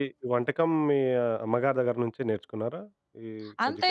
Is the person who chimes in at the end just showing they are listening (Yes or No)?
No